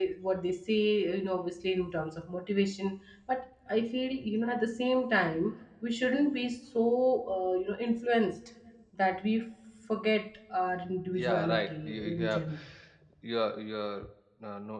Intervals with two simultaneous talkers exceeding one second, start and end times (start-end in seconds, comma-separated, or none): 11.2-12.4